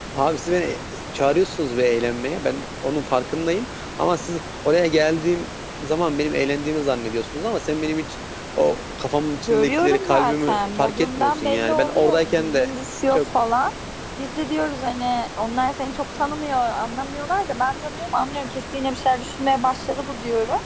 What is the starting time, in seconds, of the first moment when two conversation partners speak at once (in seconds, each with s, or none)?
9.5 s